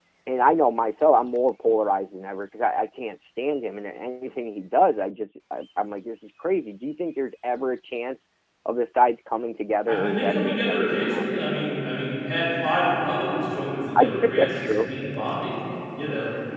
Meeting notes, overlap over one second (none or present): present